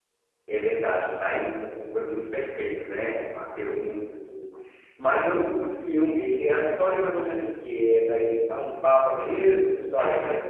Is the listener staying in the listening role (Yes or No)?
No